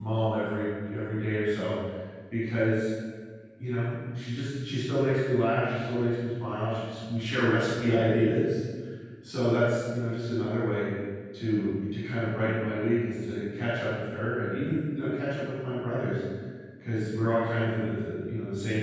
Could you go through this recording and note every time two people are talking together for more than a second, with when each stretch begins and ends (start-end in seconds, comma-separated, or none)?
none